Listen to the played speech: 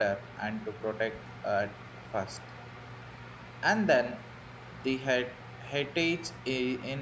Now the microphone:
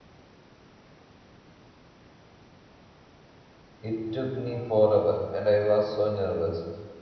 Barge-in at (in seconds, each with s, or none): 3.9 s